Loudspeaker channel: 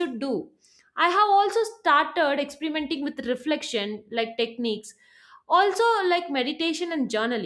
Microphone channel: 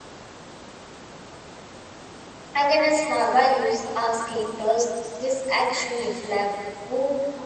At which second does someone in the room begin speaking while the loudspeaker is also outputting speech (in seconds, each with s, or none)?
2.5 s